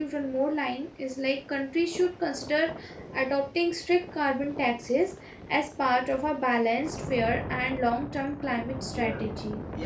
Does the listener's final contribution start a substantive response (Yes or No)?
Yes